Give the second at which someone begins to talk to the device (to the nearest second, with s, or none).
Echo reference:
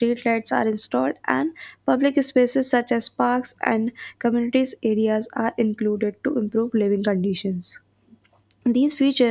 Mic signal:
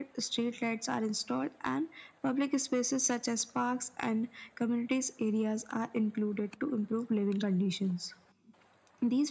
none